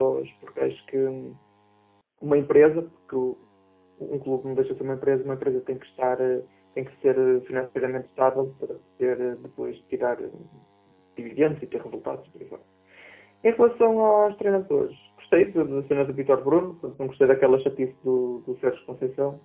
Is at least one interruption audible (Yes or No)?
No